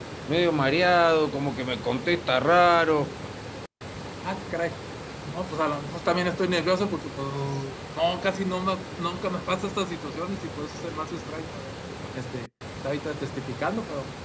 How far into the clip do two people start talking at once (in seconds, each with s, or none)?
none